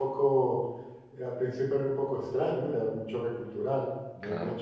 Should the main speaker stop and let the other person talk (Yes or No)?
No